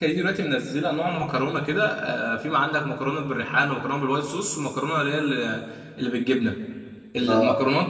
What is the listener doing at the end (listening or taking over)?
listening